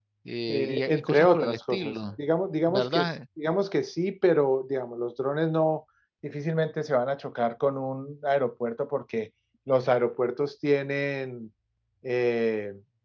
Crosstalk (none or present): present